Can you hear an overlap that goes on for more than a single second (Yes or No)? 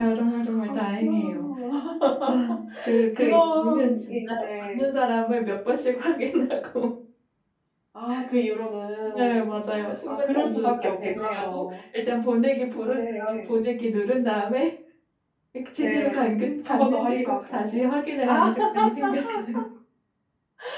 Yes